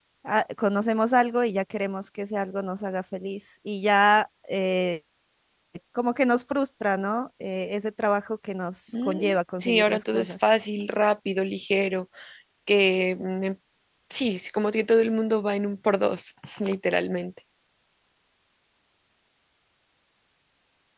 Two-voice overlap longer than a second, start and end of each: 8.9-10.3

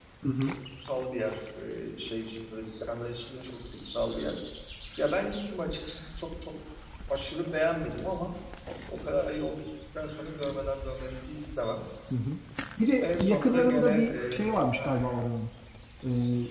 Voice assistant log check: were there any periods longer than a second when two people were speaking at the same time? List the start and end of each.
13.0-15.0

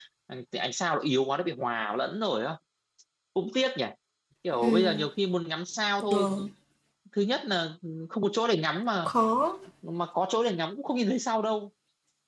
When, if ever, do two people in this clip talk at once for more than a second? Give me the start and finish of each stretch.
none

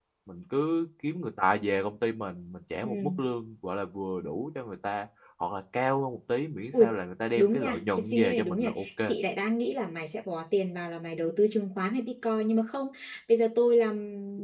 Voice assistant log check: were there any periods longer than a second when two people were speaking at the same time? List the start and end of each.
7.3-9.2

